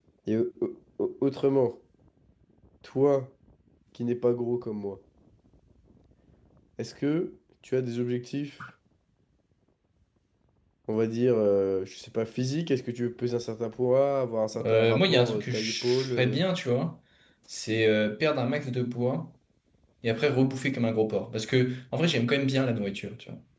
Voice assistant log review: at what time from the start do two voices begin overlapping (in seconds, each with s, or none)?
14.5 s